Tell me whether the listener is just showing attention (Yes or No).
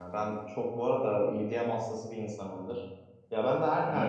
Yes